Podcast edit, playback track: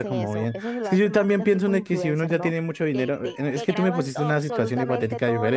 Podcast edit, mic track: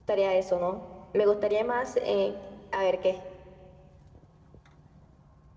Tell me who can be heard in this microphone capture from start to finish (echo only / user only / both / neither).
user only